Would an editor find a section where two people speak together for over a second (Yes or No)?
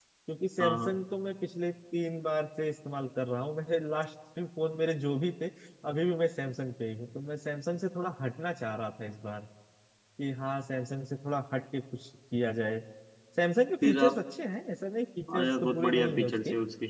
Yes